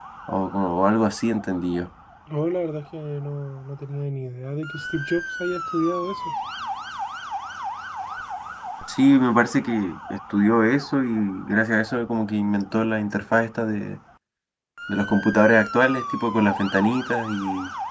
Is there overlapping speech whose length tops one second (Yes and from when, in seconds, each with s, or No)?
No